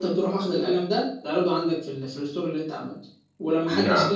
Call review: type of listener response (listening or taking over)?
listening